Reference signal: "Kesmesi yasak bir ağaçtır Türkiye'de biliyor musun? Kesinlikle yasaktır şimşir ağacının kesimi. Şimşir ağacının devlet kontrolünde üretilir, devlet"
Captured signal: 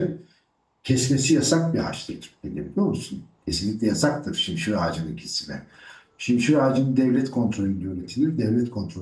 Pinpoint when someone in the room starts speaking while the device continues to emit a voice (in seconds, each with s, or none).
none